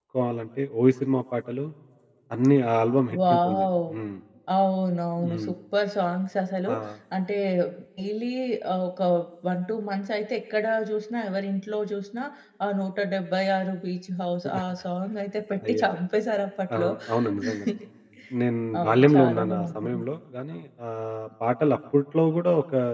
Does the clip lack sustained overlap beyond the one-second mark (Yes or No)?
No